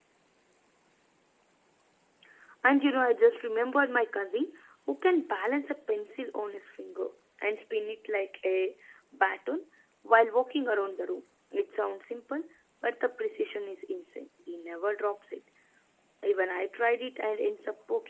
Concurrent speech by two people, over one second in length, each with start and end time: none

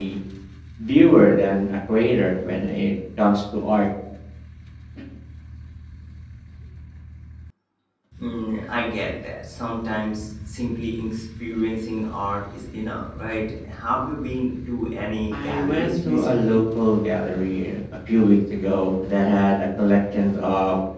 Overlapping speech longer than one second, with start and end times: 15.3-16.6

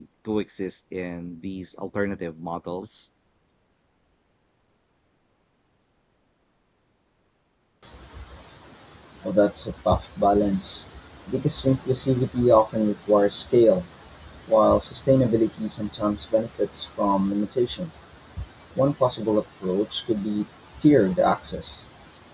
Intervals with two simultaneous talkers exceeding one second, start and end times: none

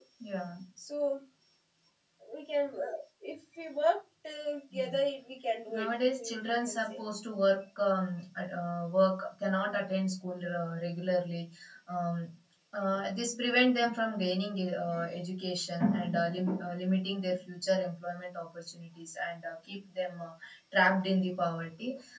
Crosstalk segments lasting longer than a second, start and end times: 5.7-7.0

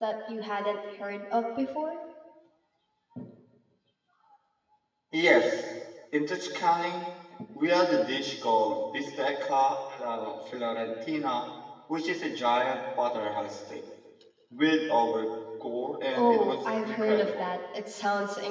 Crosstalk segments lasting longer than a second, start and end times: 16.1-17.4

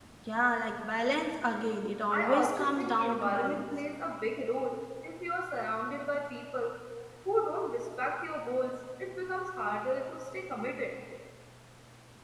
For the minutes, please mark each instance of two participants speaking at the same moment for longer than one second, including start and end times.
2.1-3.7

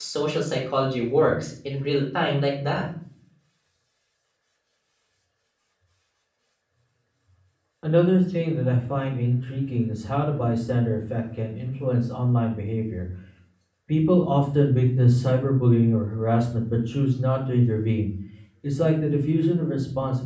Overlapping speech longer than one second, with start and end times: none

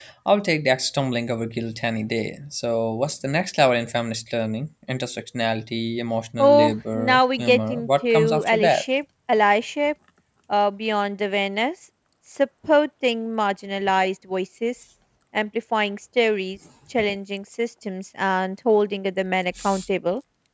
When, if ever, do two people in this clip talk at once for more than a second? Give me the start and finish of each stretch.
6.4-8.8

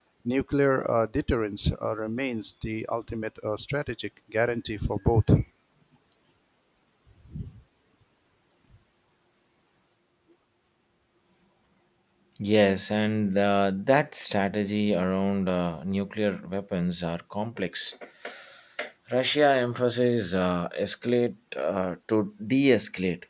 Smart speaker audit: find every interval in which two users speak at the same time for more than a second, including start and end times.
none

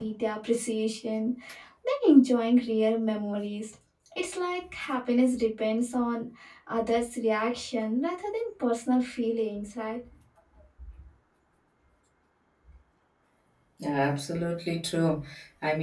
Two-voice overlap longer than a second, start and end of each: none

